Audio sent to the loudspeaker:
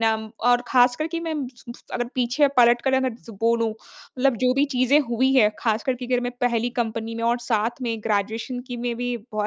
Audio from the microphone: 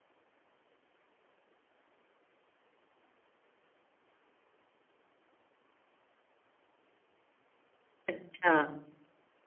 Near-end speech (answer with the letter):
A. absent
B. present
B